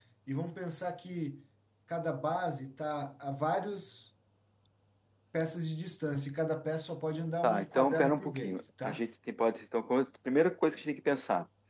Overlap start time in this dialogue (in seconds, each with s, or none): 7.4 s